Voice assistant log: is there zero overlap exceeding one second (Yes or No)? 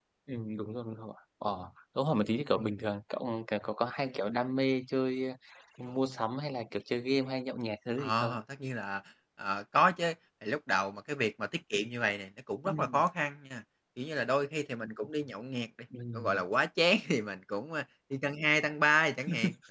Yes